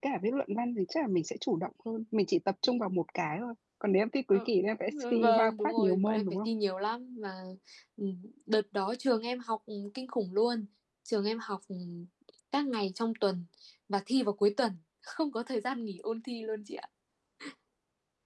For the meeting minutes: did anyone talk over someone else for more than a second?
Yes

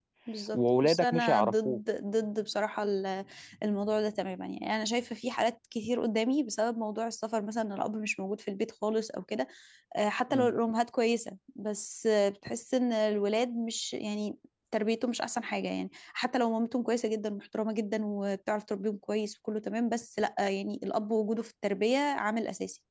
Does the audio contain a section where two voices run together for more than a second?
Yes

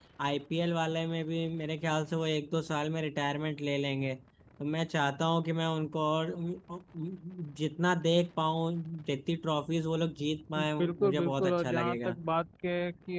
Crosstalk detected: Yes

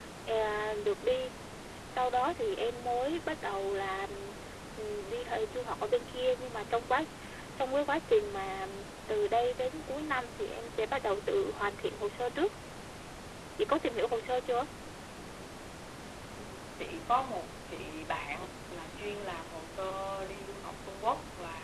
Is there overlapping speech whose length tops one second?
No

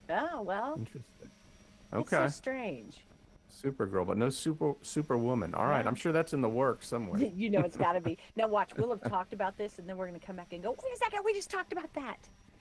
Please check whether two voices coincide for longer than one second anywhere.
No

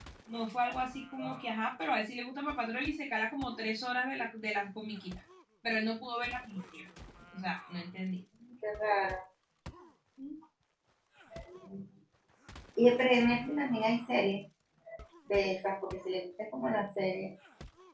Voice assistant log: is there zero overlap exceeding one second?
Yes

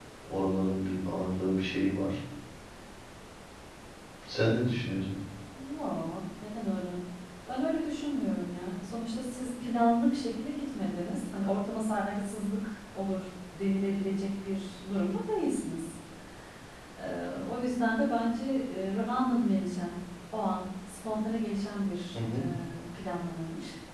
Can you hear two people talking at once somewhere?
No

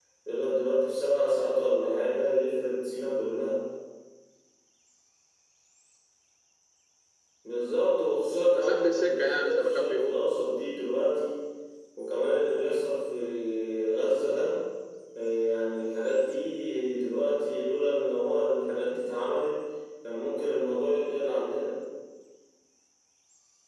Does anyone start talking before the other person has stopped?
Yes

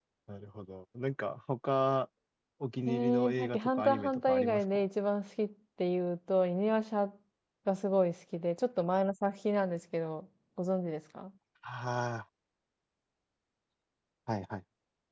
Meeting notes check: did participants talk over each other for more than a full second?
Yes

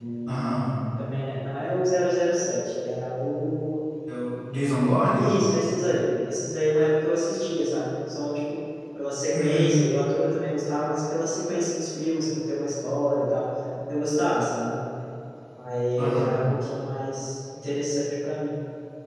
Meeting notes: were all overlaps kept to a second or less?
Yes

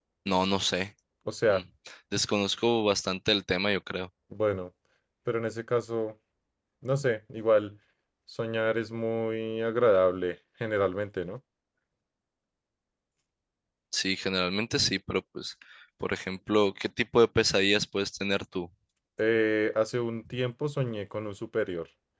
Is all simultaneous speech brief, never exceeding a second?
Yes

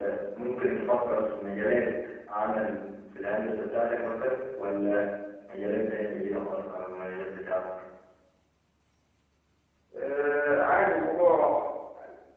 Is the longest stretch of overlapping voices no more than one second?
Yes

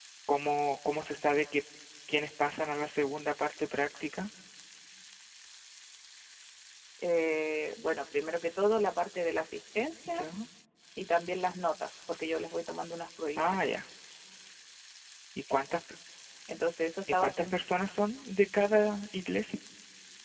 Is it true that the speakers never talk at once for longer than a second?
Yes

